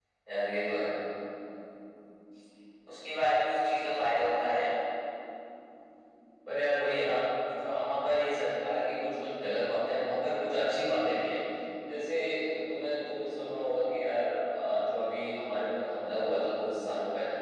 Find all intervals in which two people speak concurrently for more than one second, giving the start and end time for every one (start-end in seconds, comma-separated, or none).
none